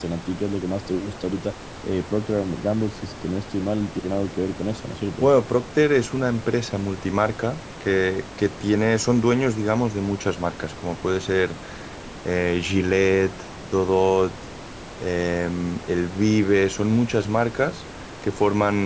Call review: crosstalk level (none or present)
none